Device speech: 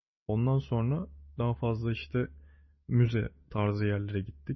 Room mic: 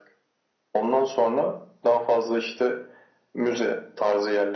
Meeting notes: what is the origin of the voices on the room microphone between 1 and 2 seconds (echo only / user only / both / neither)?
echo only